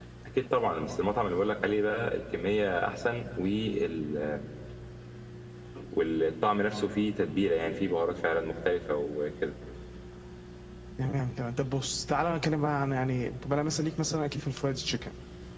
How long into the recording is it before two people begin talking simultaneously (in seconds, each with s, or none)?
none